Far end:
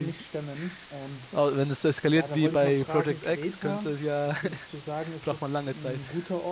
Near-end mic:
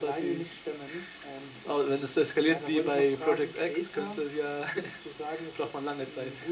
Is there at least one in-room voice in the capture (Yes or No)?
No